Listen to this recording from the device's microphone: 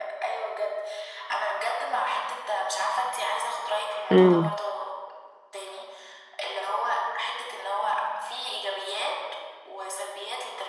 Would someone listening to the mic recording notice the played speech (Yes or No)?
Yes